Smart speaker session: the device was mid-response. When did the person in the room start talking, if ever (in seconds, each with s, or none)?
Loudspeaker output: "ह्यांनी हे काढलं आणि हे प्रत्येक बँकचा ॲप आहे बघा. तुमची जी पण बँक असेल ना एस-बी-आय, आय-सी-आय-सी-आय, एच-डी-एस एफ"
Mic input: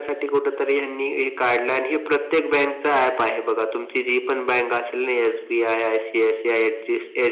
none